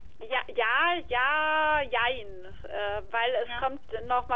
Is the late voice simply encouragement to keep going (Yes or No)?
Yes